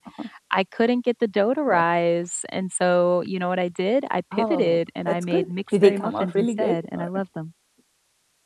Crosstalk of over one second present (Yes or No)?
Yes